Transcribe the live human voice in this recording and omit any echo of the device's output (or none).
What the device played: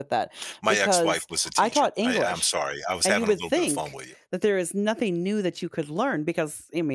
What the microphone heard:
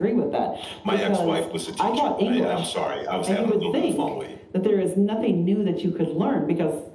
none